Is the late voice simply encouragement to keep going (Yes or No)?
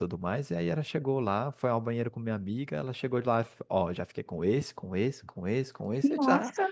Yes